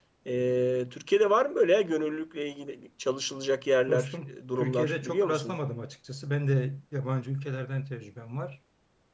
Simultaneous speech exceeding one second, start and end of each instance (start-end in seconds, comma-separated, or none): 3.9-5.6